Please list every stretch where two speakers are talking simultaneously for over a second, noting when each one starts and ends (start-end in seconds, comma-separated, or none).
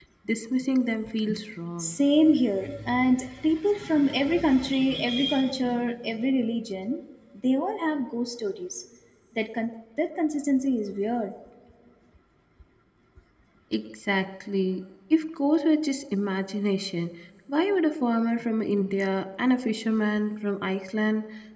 none